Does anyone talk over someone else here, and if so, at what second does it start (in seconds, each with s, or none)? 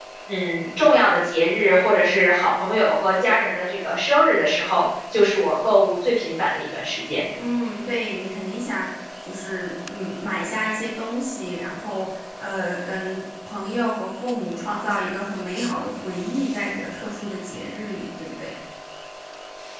none